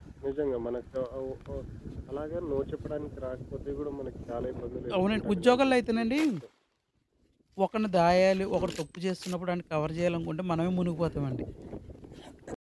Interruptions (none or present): present